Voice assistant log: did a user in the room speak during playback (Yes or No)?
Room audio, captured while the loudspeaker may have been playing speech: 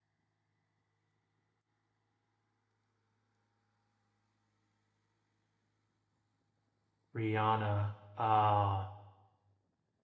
Yes